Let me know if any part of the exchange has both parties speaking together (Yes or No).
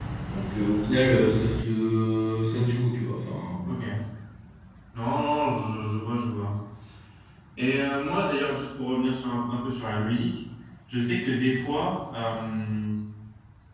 No